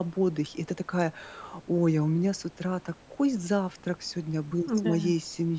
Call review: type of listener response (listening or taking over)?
listening